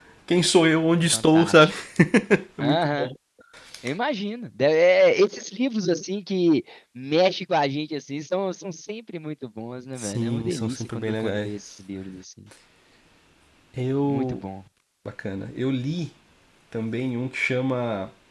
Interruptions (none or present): present